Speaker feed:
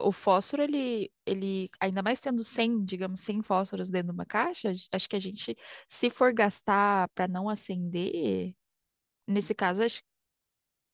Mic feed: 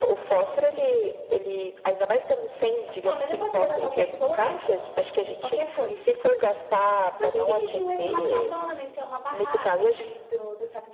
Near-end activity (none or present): present